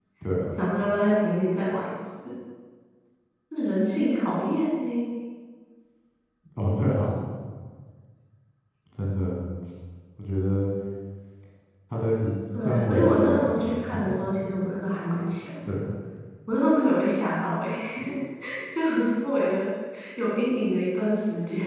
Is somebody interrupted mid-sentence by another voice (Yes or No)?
Yes